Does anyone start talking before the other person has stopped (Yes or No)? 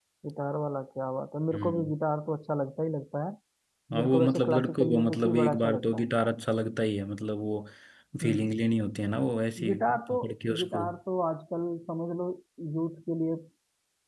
Yes